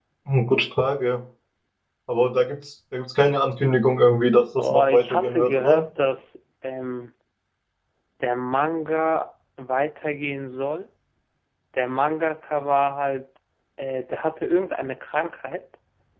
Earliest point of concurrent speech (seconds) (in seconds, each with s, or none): 4.6 s